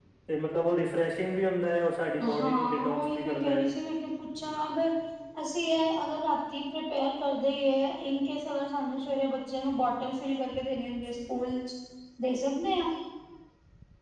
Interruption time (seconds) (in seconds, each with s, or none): 2.2 s